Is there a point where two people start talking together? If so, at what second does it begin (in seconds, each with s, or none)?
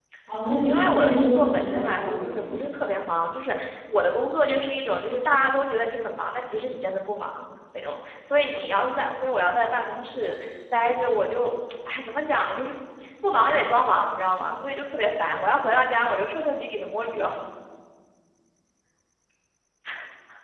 0.6 s